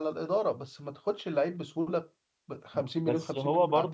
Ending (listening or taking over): taking over